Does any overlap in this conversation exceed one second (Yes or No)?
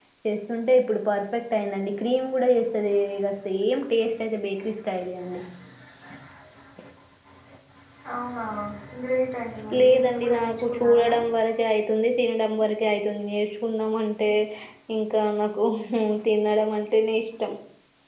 Yes